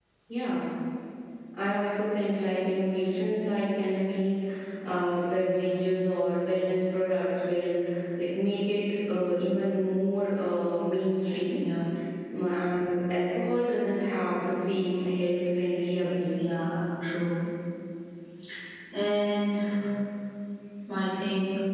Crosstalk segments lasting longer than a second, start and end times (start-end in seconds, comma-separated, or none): none